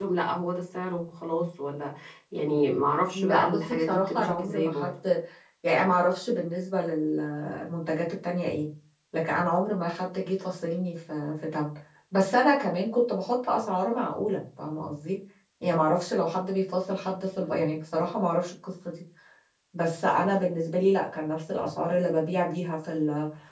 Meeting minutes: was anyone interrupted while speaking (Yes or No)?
Yes